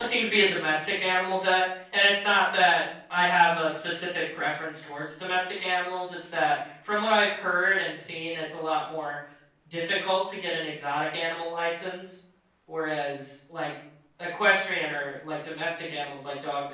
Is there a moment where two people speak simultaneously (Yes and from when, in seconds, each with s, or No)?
No